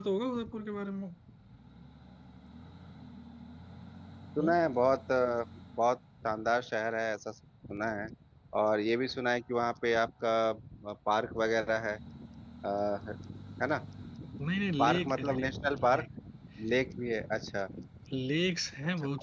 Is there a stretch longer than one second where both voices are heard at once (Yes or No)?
Yes